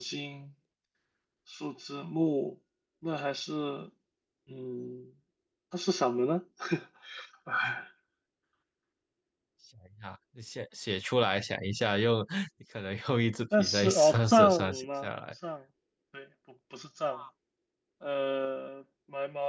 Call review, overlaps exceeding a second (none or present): present